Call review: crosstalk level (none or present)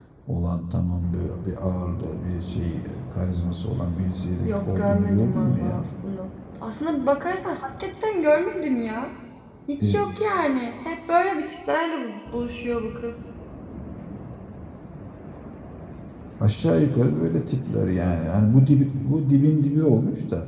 present